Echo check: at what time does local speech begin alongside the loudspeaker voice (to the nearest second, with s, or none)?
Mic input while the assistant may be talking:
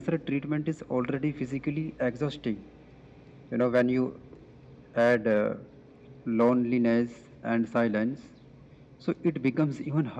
none